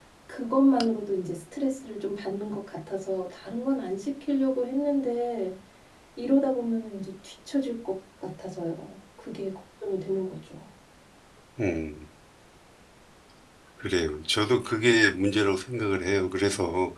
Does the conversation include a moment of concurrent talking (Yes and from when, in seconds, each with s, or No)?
No